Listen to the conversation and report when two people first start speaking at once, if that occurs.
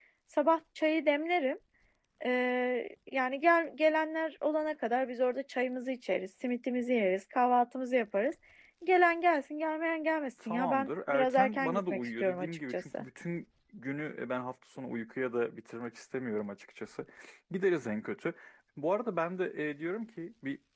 10 s

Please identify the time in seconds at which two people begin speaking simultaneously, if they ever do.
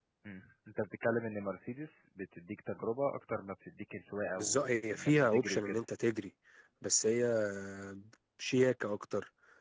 4 s

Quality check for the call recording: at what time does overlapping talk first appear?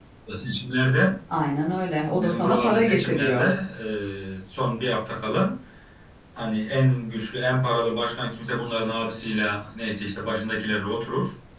2 s

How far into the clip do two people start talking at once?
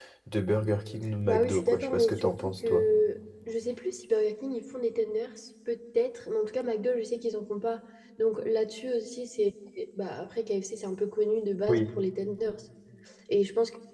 1 s

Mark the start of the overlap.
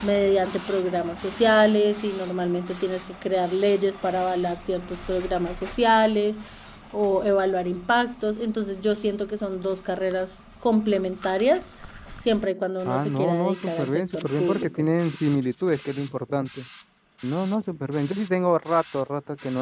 13 s

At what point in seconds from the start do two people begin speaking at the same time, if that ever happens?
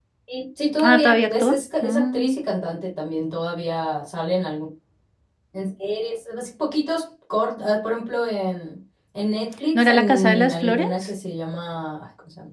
1 s

